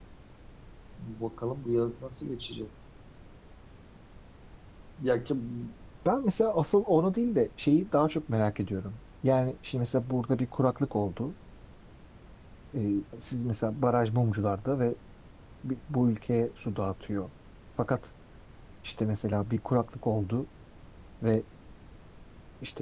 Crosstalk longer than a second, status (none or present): none